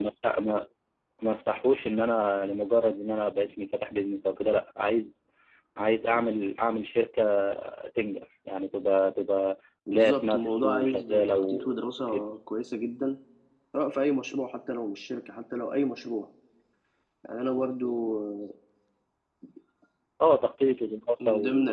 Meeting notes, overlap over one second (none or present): present